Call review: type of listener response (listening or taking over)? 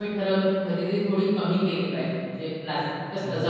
listening